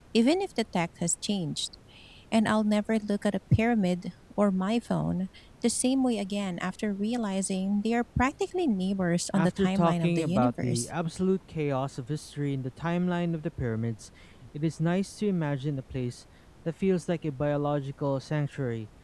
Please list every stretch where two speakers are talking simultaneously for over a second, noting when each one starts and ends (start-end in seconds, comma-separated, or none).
9.3-10.9